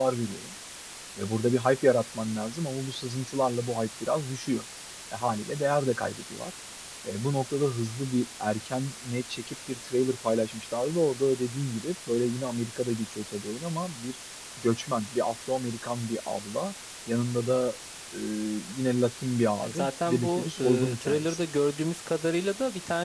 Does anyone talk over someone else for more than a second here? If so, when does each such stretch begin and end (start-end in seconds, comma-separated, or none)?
19.6-21.4